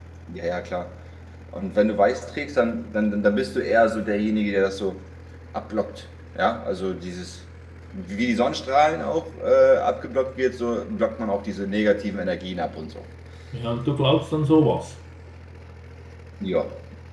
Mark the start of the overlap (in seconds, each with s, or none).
none